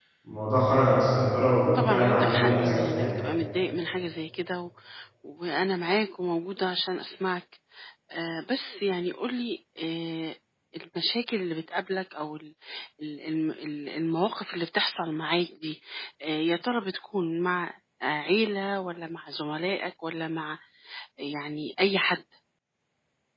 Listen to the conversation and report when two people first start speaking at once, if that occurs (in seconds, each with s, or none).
1.8 s